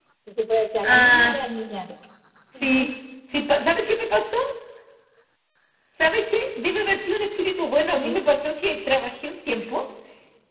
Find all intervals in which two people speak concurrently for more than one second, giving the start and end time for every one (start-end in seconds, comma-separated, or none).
none